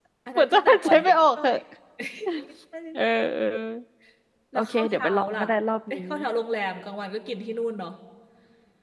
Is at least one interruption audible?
Yes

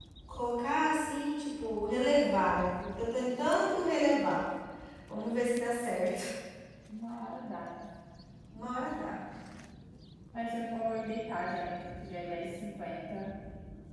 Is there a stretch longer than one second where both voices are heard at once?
No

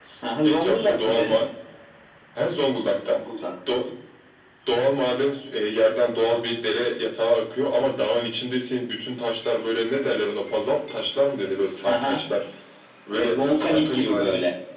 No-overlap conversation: No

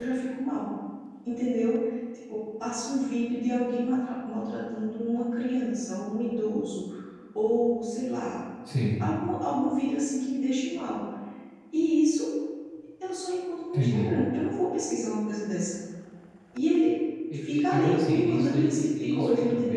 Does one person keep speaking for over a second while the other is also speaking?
Yes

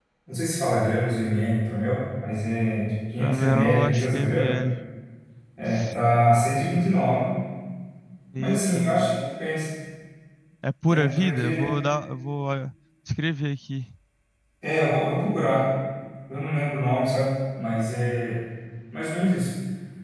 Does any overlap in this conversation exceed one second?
Yes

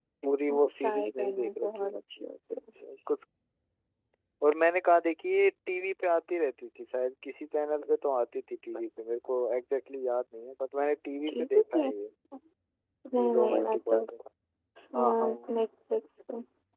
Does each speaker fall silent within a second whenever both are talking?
No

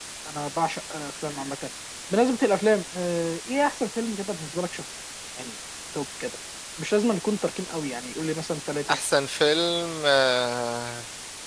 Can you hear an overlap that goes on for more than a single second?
No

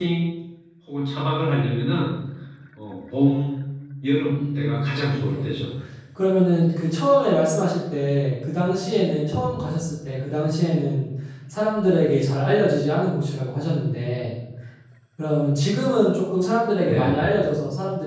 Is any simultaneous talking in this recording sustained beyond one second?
Yes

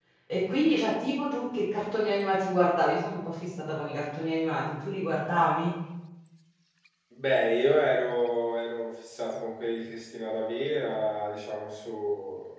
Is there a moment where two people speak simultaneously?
No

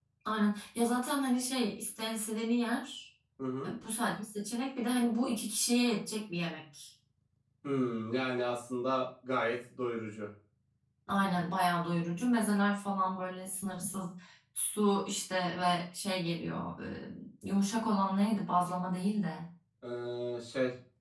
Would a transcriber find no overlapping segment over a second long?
Yes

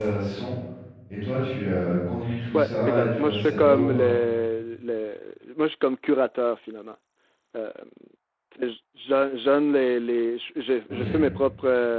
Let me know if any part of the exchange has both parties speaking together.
Yes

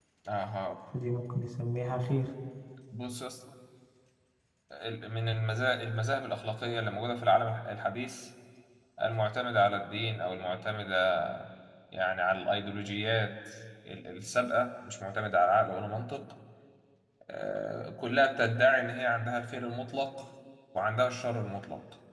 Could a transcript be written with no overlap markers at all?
Yes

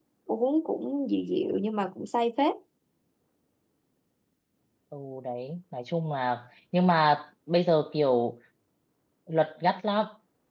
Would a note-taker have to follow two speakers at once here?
No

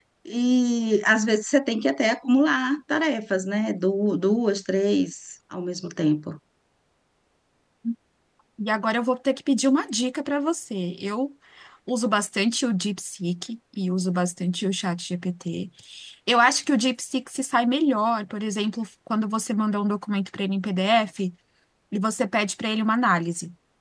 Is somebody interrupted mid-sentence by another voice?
No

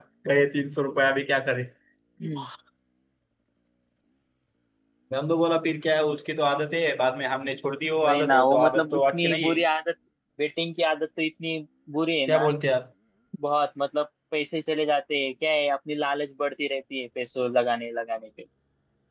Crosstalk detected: Yes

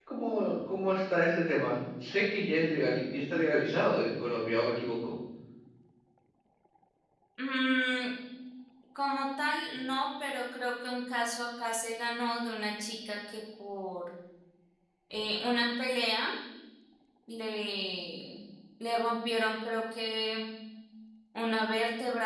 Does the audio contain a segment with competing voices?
No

